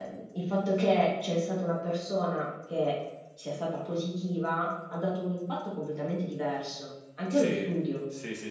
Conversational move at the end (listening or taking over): taking over